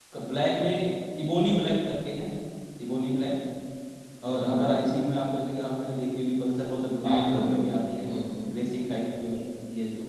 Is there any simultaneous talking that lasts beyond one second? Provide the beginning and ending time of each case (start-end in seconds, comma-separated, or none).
none